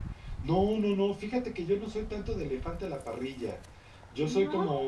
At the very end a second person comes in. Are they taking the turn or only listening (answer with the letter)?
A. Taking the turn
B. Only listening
B